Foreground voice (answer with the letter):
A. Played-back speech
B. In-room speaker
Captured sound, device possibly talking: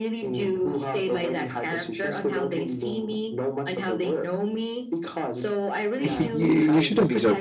B